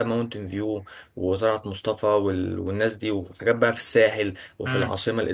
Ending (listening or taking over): taking over